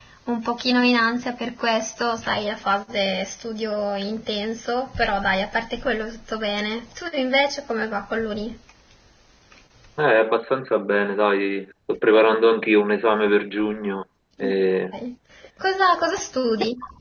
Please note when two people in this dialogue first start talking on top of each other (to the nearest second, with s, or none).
none